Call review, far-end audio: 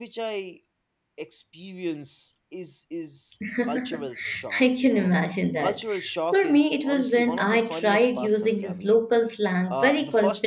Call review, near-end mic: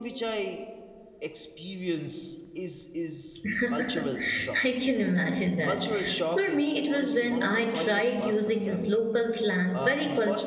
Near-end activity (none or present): none